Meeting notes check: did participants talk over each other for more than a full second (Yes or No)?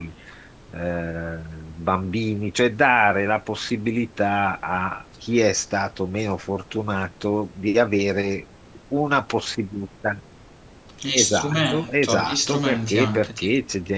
Yes